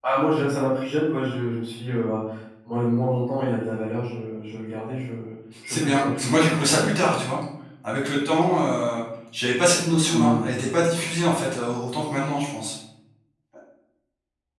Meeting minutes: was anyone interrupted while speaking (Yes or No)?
Yes